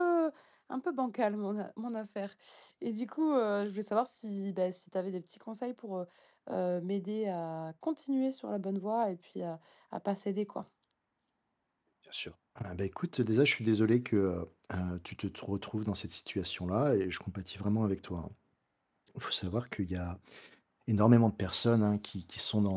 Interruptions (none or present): none